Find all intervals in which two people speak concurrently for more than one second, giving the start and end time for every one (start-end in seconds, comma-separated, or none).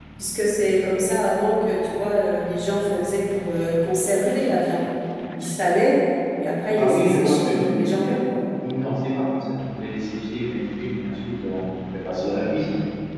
6.8-8.2